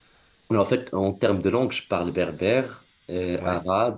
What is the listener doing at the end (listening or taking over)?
listening